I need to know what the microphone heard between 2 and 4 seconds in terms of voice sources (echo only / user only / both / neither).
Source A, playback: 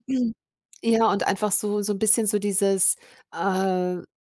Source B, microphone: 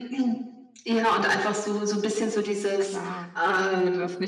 both